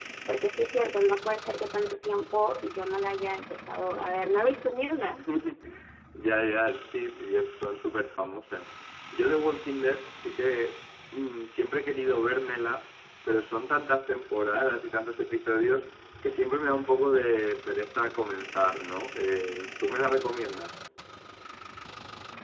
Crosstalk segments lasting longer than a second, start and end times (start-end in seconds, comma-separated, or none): none